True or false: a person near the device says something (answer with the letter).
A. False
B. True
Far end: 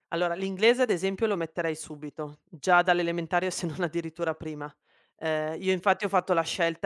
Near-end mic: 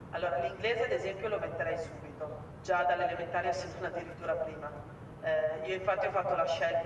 A